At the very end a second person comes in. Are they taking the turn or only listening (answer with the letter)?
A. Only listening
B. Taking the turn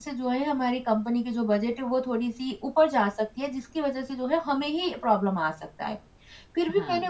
A